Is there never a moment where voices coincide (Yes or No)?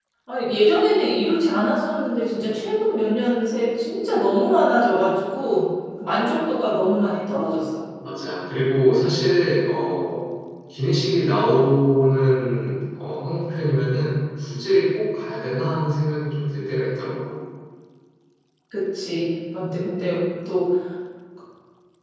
Yes